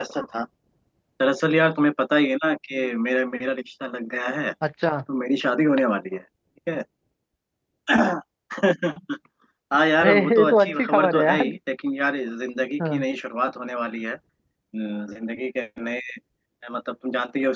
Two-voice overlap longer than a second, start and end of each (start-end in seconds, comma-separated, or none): 10.0-11.4